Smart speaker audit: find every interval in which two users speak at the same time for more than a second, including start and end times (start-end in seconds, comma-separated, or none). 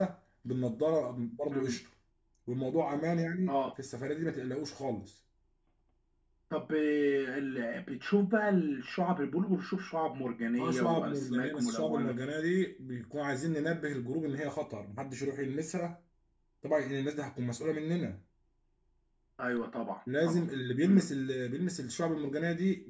10.6-12.1